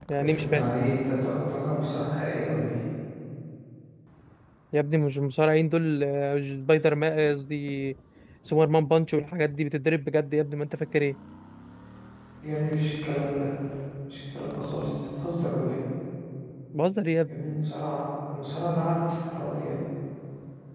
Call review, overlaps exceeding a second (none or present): none